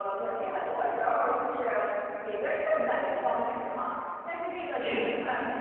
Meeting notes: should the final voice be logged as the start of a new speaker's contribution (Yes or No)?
No